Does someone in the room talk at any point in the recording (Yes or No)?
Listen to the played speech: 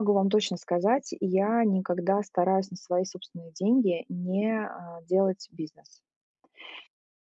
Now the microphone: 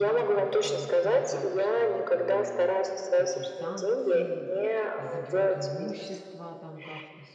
Yes